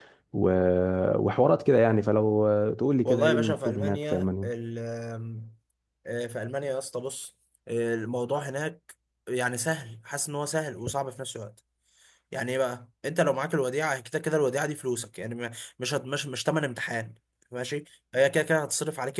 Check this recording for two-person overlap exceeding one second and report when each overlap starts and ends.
3.0-4.5

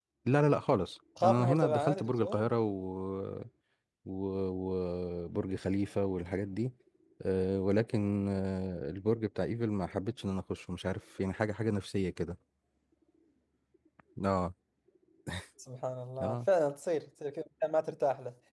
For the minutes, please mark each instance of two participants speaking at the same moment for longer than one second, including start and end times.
1.2-2.5

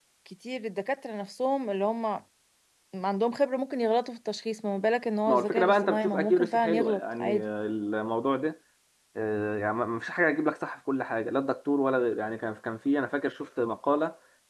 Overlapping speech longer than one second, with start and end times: 5.3-7.4

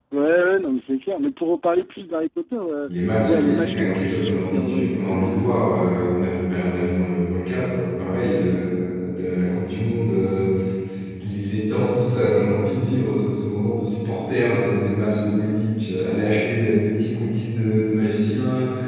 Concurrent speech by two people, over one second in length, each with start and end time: 3.3-5.6

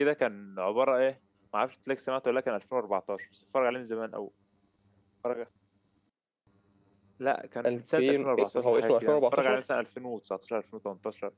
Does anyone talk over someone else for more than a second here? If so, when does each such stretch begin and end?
7.7-9.6

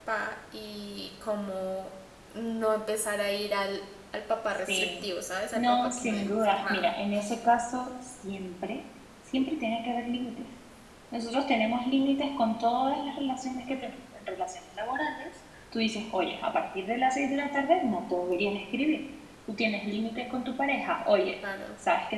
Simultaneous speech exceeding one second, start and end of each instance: 5.6-6.9

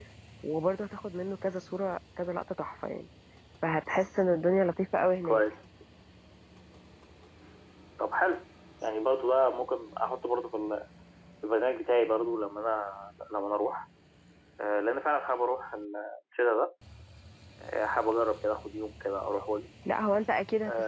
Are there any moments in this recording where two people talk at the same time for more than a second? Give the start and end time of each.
none

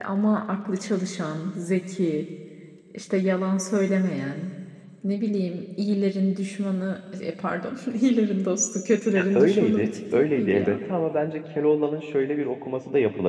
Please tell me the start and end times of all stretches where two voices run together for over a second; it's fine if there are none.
9.2-10.8

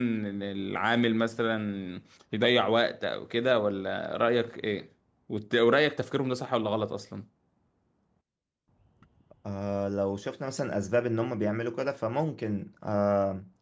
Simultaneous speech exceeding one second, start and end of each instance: none

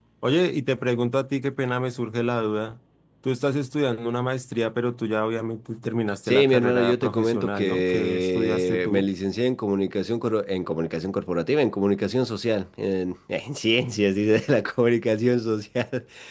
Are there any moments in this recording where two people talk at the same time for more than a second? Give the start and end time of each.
6.3-9.1

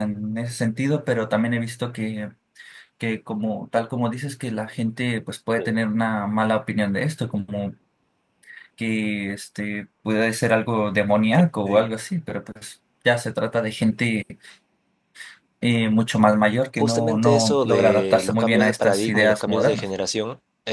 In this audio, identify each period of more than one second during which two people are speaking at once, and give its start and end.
16.8-19.8

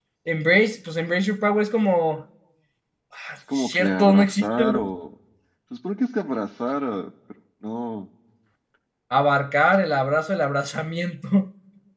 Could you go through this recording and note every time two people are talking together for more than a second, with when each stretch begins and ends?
3.5-4.9

